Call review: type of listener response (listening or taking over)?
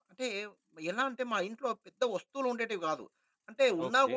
listening